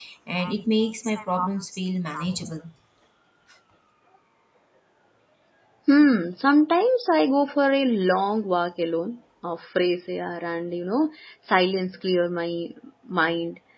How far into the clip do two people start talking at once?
none

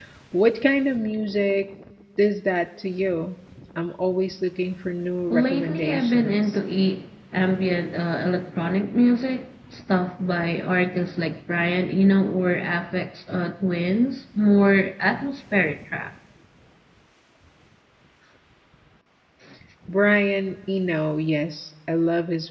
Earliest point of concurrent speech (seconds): 5 s

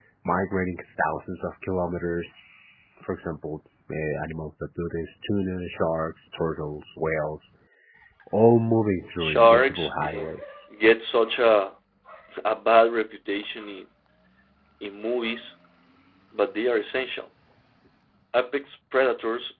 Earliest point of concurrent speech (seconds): 9 s

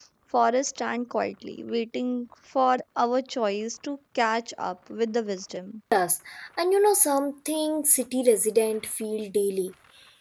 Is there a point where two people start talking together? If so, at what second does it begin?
none

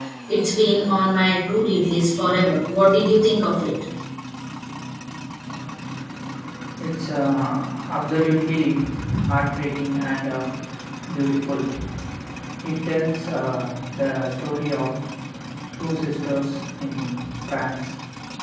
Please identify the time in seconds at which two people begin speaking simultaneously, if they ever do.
none

